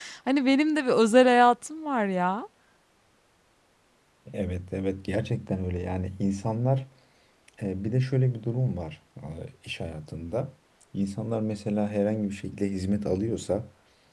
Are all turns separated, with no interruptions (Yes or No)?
Yes